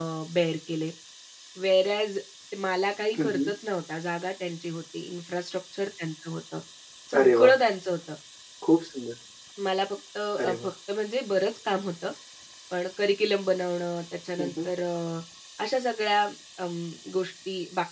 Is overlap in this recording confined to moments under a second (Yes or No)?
Yes